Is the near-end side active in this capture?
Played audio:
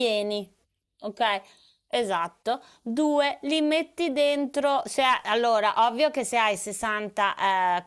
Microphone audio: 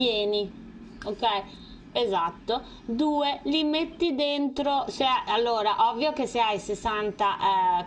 No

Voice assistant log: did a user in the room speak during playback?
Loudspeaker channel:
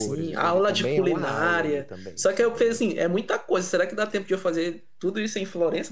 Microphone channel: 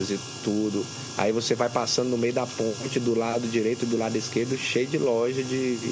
Yes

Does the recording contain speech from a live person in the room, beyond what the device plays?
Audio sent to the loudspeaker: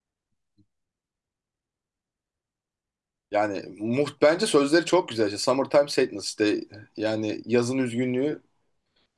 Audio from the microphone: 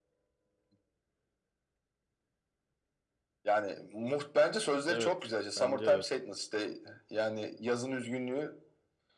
Yes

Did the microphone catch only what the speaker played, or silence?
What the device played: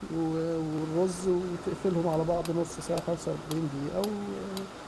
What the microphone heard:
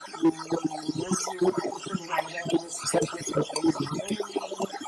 Yes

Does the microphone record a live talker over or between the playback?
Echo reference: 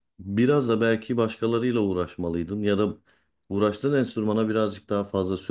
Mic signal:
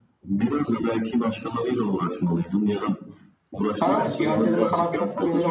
Yes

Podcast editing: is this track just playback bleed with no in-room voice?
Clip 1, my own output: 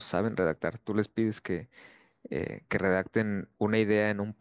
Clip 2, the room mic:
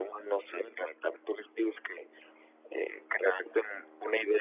Yes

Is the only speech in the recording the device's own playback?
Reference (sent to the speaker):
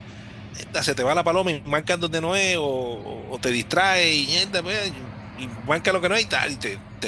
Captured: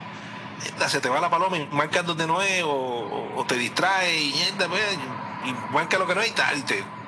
Yes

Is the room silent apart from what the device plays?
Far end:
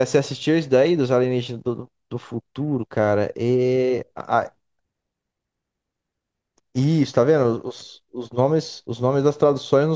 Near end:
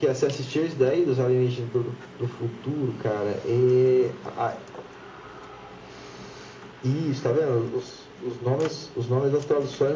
Yes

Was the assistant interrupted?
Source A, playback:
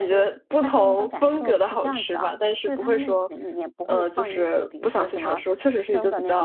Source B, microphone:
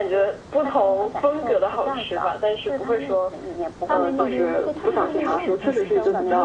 Yes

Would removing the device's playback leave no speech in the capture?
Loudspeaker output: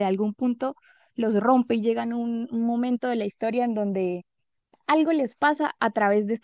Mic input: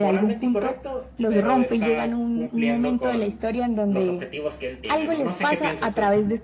No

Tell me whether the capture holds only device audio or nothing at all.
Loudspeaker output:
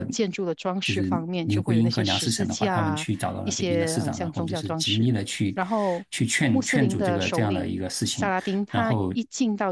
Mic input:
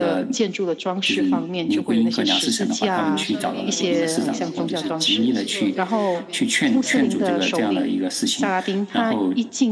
No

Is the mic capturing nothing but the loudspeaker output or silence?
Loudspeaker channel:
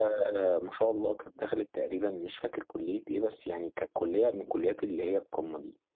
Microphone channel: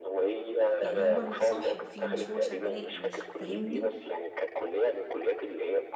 No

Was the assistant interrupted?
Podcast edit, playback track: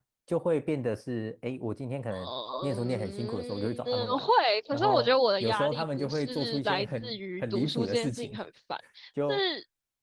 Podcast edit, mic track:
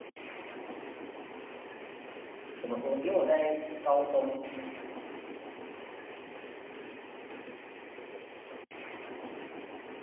Yes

